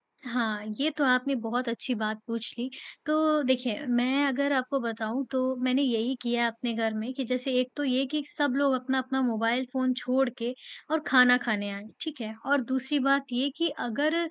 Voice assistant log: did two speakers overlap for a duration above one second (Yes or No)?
No